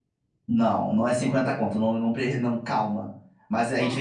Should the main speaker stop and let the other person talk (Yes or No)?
No